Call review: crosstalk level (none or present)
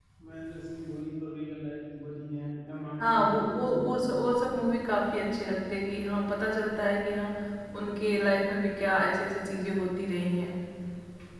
present